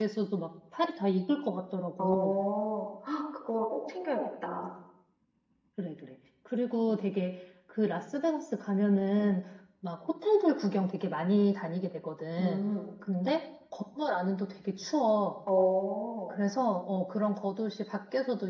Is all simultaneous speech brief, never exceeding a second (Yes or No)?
Yes